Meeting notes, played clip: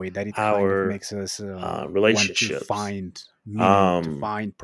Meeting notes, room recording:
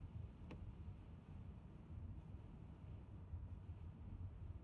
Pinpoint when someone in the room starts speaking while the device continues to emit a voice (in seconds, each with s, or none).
none